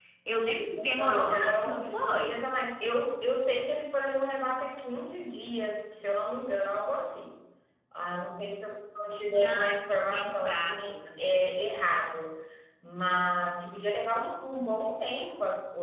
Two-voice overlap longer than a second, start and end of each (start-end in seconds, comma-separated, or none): 0.7-2.5, 9.3-10.7